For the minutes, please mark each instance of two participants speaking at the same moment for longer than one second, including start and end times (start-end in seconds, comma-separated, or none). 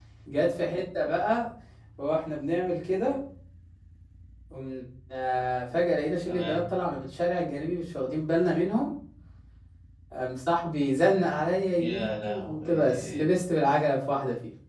11.8-13.2